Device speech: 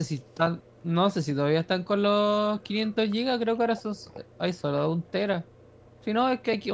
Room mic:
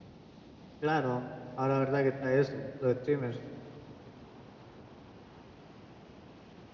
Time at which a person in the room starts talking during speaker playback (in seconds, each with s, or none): 0.8 s